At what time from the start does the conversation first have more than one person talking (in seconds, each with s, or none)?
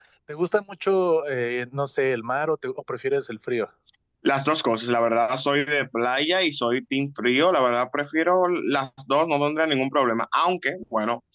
none